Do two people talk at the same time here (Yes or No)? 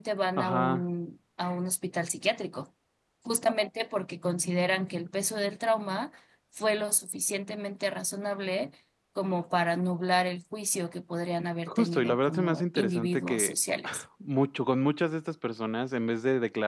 Yes